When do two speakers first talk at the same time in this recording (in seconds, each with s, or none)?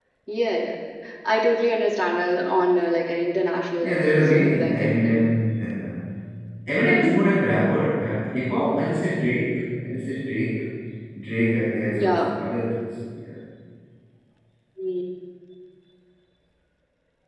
3.8 s